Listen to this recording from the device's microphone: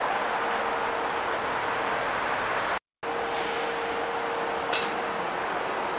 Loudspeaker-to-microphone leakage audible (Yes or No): No